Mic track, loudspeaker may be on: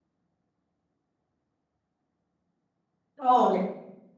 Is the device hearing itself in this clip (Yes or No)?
No